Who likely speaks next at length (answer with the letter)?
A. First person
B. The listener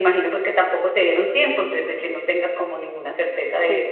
B